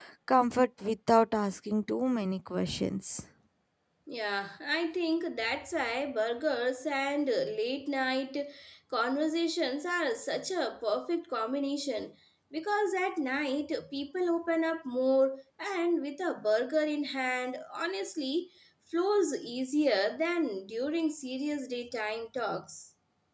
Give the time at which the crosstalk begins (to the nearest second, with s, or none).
none